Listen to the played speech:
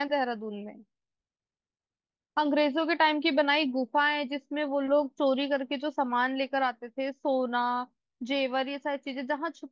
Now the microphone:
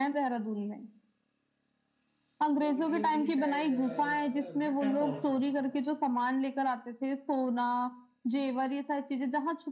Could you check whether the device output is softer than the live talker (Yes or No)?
No